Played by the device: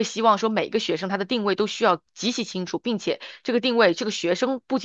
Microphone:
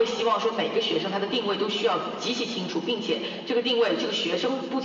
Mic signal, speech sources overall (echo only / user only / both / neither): echo only